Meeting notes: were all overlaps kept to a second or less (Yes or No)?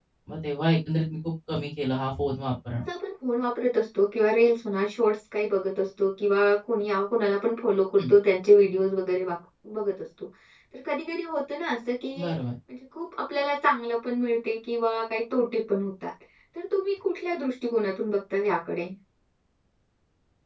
Yes